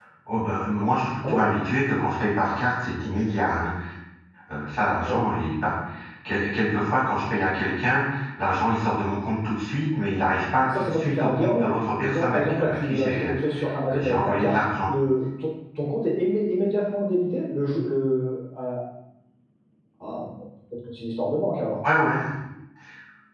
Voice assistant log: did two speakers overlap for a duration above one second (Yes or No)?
Yes